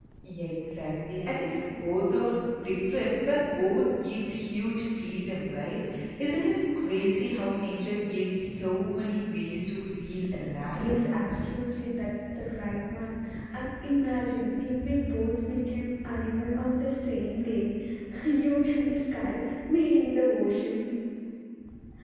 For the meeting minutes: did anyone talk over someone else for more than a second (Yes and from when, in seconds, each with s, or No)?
No